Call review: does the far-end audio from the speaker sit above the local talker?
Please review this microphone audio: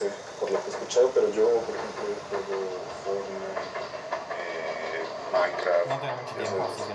Yes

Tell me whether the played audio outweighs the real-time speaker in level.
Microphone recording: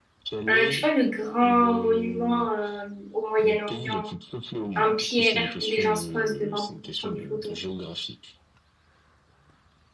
No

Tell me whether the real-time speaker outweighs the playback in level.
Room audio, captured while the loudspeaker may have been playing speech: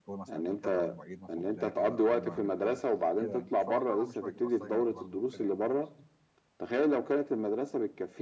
No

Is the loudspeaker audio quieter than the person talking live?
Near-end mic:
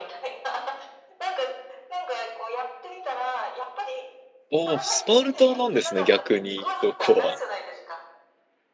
Yes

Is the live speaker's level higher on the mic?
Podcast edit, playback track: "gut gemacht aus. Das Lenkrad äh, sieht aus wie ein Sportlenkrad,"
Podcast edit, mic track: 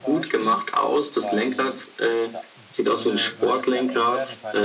No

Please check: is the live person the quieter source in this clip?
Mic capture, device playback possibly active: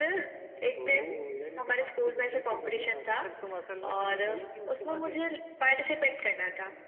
Yes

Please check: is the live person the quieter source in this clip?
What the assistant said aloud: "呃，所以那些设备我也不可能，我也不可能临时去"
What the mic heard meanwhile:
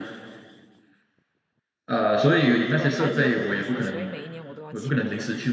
Yes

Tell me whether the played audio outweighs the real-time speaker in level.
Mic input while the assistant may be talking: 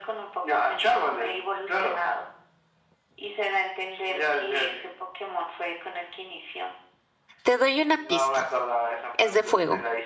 No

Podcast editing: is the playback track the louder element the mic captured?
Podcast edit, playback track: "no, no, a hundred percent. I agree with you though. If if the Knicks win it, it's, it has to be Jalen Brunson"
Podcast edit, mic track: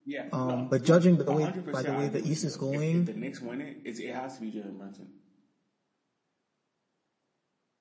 No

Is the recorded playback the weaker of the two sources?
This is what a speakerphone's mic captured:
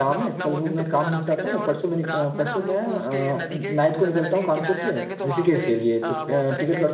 Yes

